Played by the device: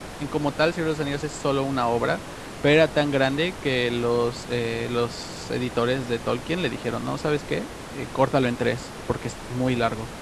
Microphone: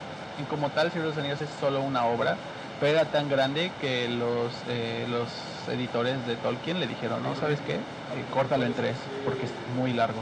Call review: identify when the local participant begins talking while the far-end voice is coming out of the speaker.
7 s

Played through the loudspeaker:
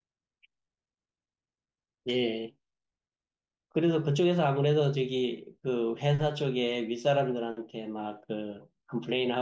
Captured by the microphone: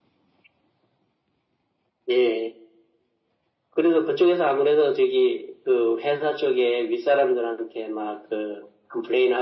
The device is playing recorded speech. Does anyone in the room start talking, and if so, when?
none

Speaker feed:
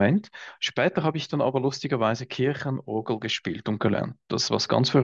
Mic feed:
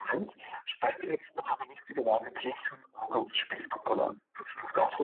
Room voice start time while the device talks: none

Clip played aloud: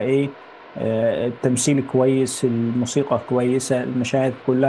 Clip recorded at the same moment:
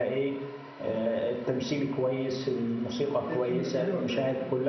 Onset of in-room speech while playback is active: 3 s

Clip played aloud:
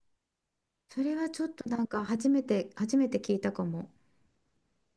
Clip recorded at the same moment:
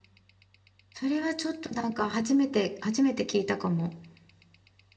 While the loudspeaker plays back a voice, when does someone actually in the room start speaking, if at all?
none

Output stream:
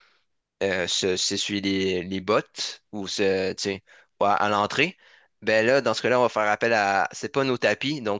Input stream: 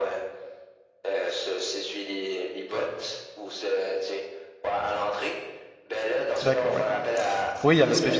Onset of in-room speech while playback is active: 6 s

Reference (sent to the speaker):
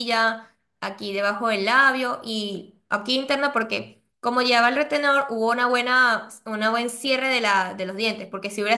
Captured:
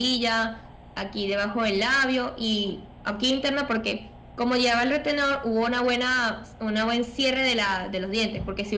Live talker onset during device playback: none

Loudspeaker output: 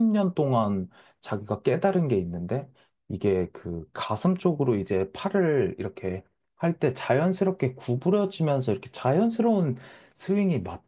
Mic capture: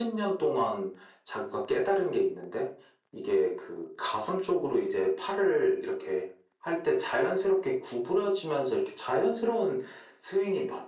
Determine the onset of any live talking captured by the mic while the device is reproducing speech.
none

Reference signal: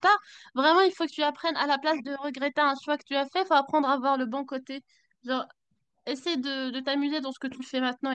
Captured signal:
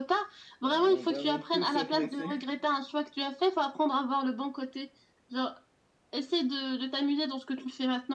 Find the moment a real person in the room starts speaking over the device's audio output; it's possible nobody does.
1 s

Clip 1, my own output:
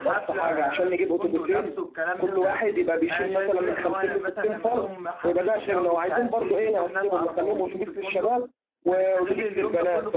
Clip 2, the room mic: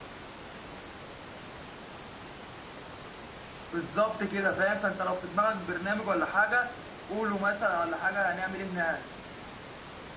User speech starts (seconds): 4 s

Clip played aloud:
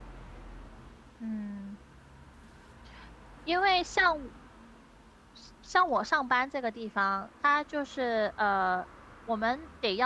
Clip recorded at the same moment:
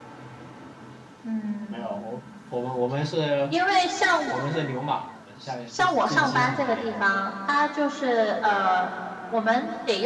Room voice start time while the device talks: 2 s

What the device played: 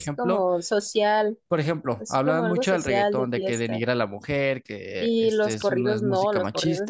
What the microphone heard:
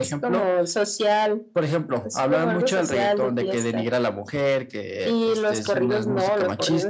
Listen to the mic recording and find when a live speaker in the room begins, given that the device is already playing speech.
none

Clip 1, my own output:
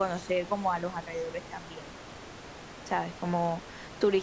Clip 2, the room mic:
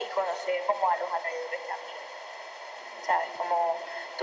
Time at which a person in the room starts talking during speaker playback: none

